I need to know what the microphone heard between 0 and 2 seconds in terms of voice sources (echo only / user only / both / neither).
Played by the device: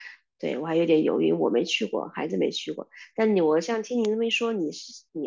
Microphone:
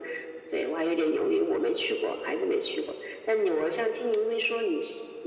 echo only